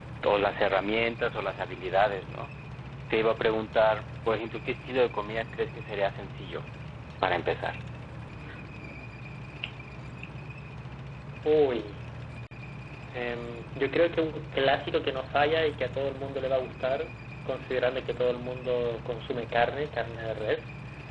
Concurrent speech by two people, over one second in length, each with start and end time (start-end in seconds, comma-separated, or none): none